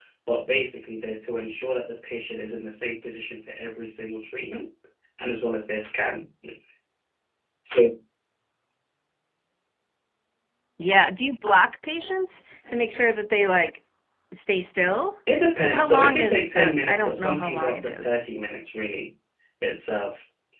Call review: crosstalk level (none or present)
present